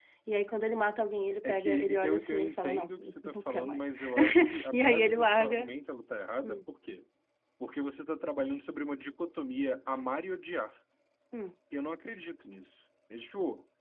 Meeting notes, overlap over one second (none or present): present